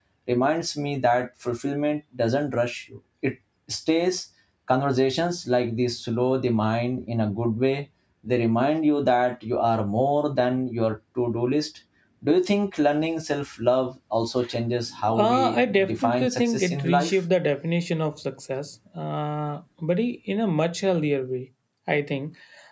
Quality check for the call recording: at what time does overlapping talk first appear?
15 s

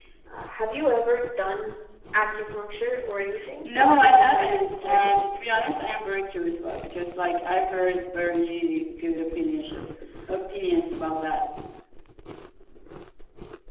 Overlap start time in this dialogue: 4 s

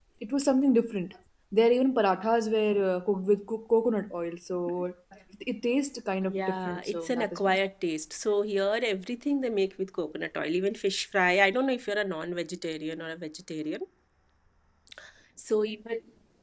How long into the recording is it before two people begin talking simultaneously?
6 s

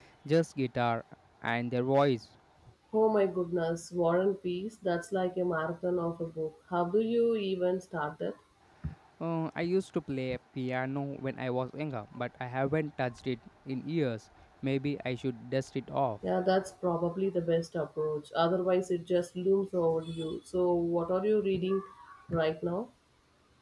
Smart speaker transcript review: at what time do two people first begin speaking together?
none

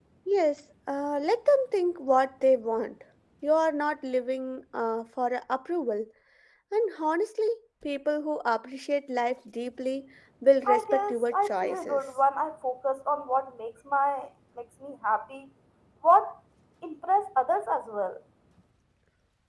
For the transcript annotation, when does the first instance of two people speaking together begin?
11 s

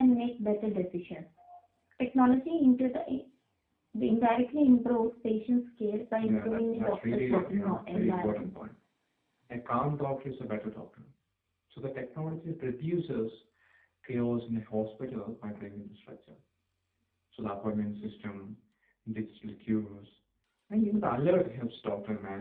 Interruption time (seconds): 6 s

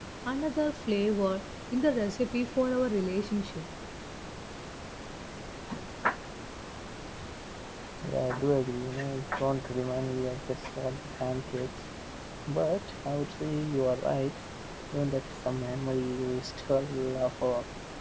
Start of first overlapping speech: none

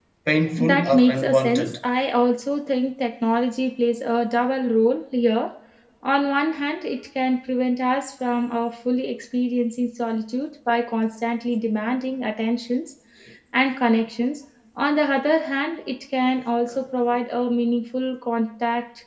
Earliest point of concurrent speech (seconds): 1 s

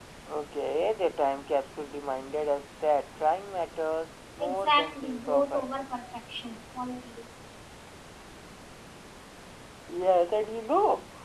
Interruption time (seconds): 4 s

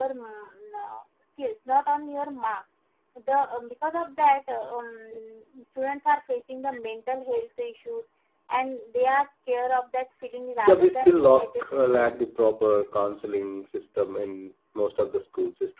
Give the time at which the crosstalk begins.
11 s

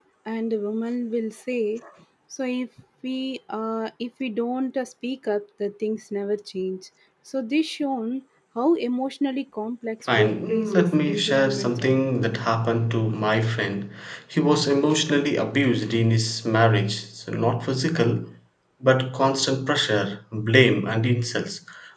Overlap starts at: 10 s

